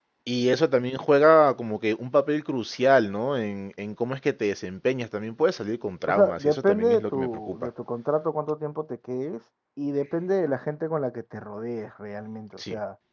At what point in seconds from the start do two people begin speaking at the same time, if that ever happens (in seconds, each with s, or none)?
6.1 s